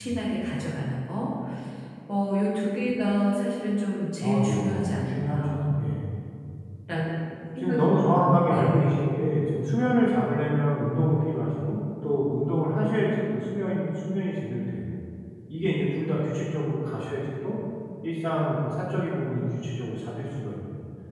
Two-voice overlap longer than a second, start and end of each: 4.2-5.8, 7.6-9.2

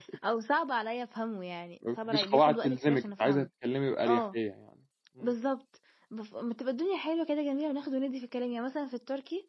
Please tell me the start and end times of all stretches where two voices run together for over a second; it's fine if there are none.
2.1-3.5

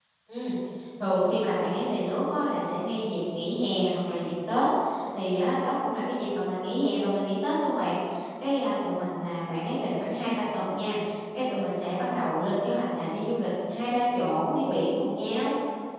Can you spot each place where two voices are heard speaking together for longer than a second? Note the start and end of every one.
none

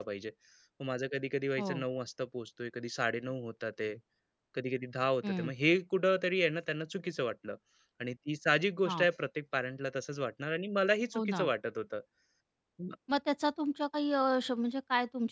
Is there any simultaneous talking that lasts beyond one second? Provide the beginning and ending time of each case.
none

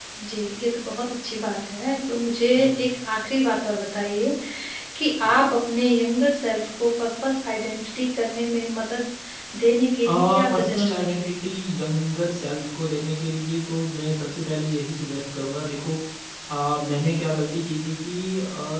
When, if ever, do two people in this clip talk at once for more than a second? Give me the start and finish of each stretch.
10.1-11.3

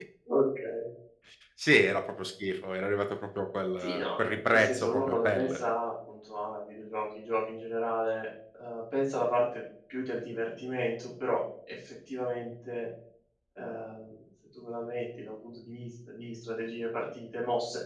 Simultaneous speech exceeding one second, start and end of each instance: 3.8-5.6

